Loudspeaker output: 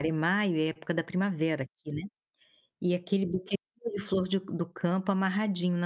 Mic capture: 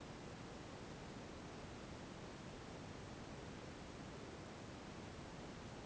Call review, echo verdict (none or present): none